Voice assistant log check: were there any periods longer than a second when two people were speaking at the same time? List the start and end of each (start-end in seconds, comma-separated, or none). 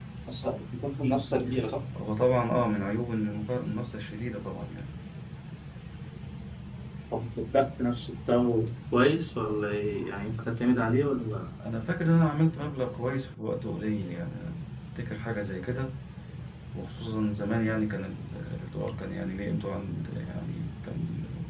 none